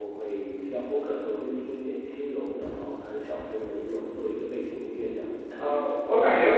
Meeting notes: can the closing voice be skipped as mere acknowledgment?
No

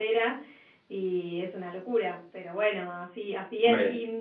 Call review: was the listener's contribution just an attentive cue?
Yes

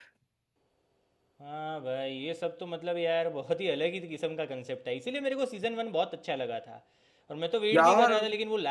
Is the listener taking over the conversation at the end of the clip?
No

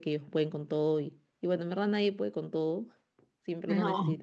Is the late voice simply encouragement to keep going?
Yes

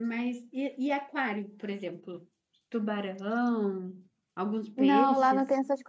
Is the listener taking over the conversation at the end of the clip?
Yes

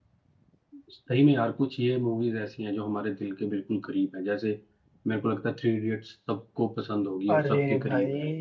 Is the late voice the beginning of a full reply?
Yes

